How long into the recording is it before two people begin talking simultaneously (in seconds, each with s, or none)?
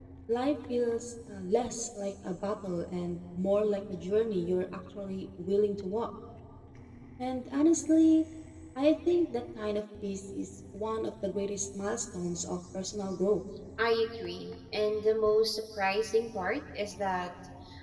none